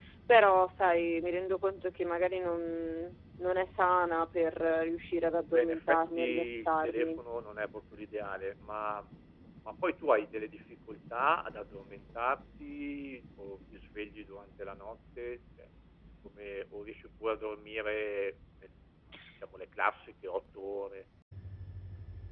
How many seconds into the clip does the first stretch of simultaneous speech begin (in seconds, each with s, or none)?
5.5 s